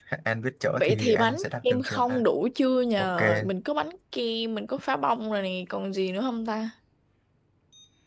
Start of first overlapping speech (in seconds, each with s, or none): 0.8 s